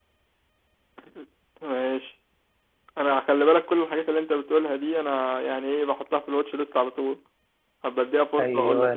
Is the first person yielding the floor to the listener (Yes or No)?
Yes